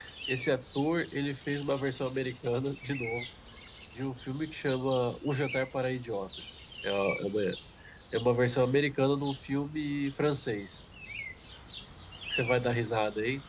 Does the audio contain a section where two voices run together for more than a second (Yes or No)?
No